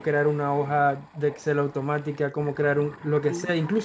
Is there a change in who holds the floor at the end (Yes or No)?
No